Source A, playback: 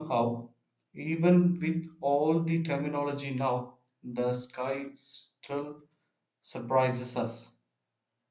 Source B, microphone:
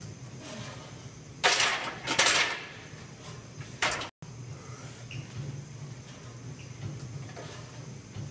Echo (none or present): none